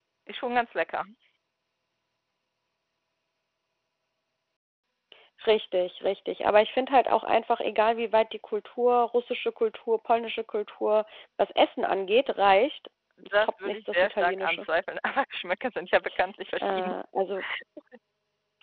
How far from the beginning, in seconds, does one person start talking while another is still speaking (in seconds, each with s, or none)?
13.3 s